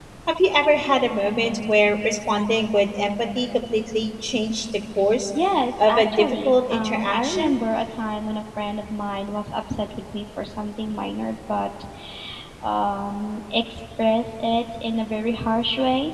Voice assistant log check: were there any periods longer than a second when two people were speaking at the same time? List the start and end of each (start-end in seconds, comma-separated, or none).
5.8-7.6